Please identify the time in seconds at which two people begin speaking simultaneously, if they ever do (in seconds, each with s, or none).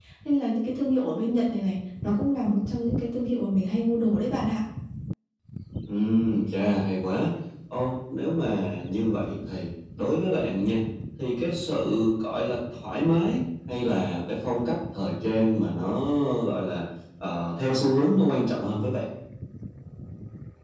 none